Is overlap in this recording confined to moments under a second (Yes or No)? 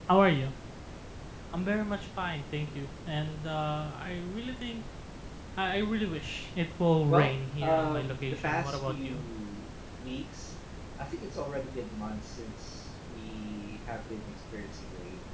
No